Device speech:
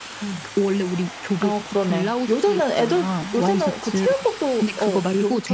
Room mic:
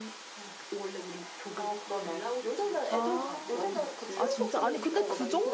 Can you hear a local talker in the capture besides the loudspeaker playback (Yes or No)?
Yes